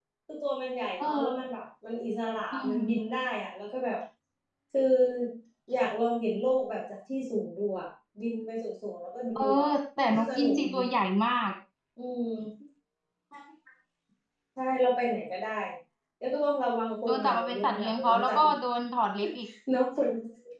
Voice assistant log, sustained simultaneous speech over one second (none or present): present